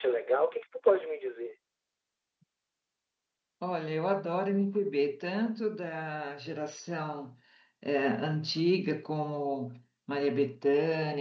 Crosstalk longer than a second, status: none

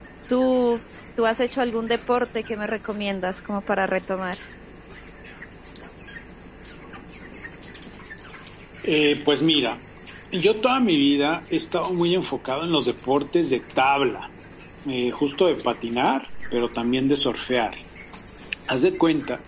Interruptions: none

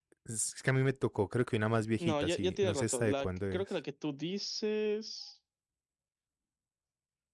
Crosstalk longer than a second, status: present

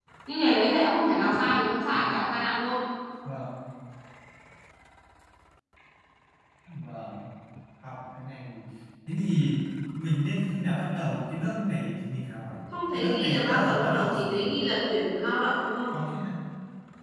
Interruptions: present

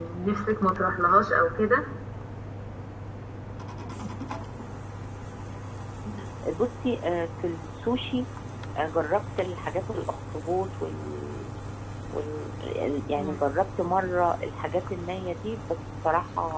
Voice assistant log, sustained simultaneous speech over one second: none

